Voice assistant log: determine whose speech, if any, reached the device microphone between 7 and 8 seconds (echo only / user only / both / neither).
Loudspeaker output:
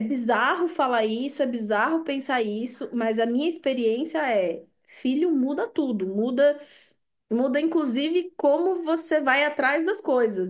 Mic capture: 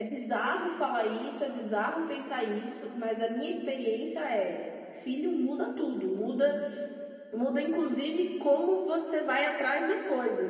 echo only